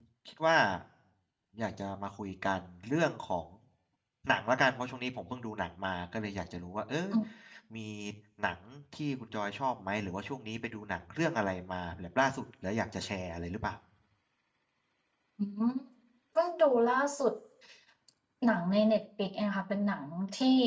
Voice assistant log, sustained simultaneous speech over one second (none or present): none